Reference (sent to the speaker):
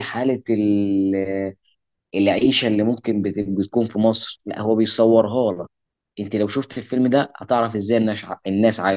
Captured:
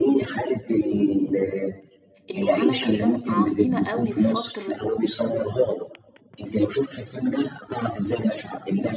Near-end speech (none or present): present